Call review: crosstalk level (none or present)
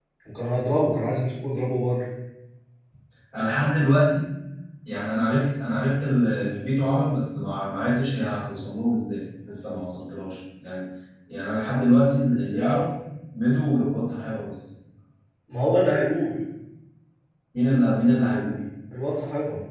none